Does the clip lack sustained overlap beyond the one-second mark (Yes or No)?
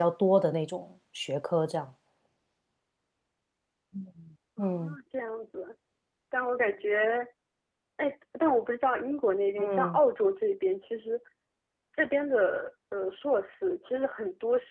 Yes